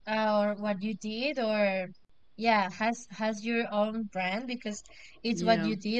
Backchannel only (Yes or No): Yes